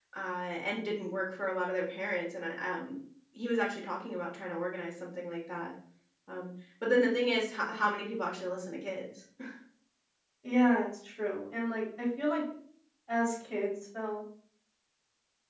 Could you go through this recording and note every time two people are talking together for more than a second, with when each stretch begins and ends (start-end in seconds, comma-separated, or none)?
none